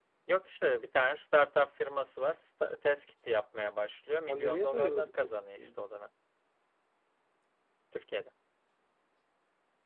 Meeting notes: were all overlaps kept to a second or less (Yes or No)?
No